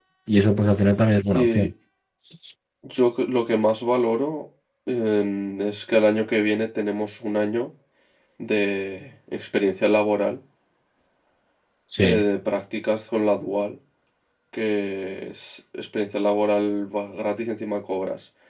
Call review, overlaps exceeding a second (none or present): none